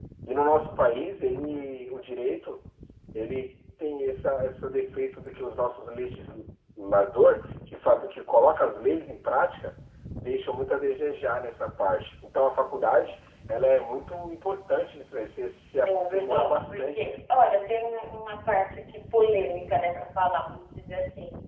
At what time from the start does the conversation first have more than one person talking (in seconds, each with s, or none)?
15.8 s